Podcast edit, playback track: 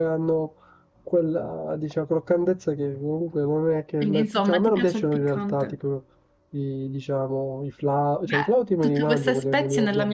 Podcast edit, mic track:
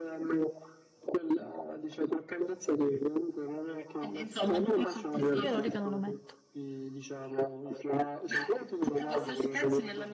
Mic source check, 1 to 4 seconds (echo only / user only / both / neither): echo only